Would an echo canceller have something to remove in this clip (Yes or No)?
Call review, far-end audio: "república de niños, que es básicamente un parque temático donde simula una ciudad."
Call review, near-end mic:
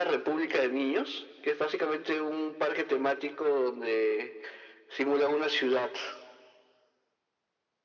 Yes